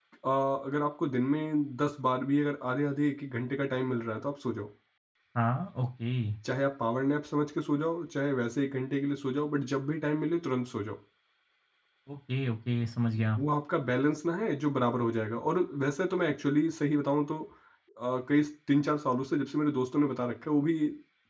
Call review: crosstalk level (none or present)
none